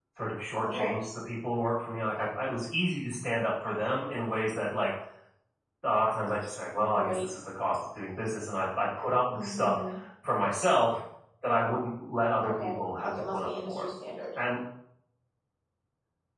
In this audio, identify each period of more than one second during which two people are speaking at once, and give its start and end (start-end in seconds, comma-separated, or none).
12.4-13.9